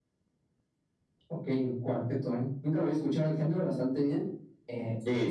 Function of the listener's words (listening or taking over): listening